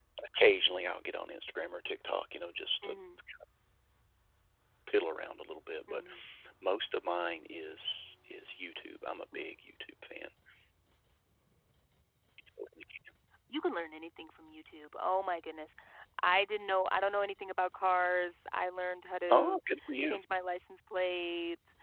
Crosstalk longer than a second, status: none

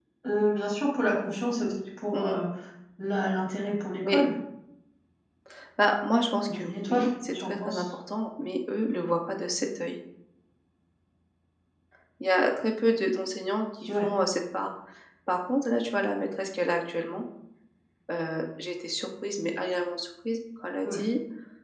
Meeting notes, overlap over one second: present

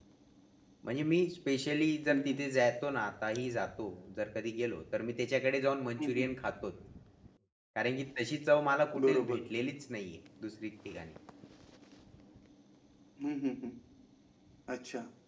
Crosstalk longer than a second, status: none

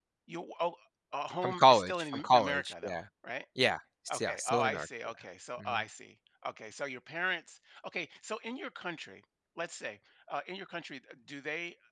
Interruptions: present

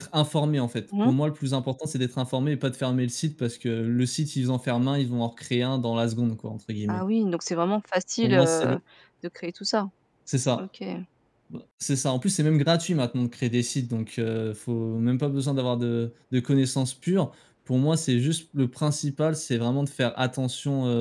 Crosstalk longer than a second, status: none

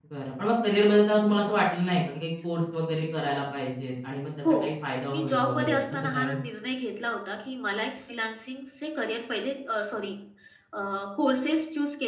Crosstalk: present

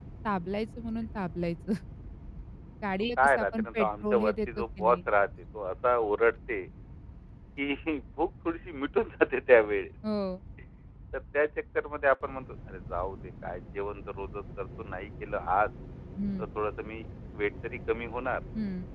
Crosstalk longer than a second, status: present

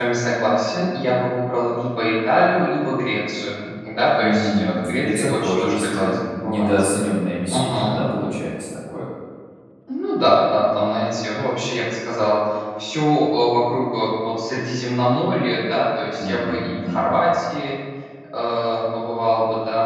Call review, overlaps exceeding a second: present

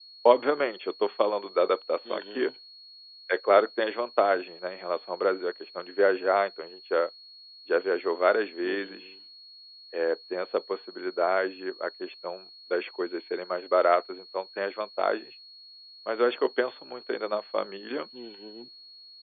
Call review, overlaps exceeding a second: none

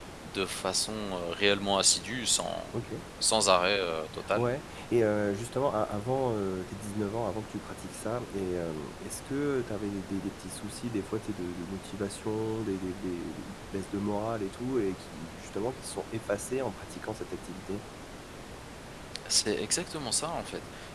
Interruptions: none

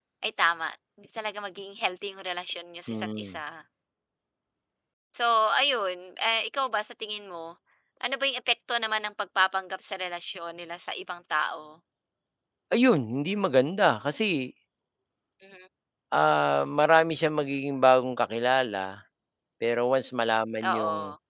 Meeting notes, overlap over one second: none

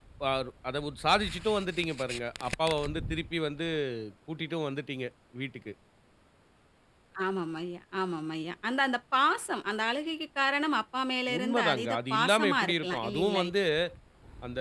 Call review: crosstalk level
present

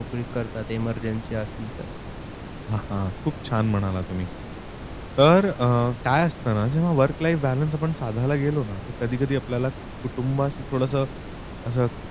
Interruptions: none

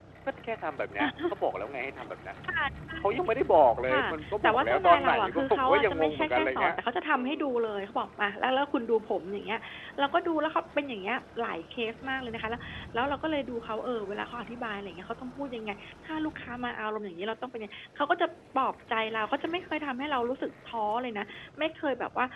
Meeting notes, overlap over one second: present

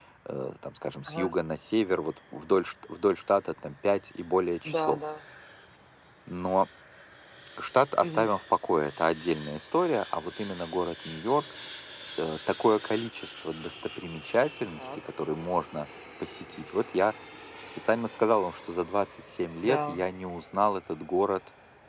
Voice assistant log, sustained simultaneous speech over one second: none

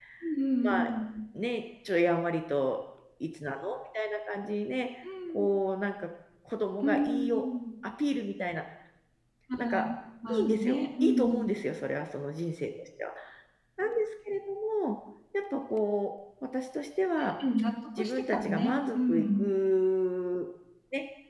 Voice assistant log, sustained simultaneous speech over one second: present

